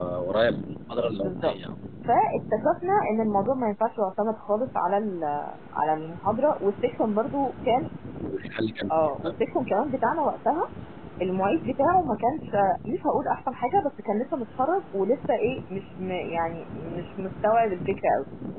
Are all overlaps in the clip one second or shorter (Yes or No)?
Yes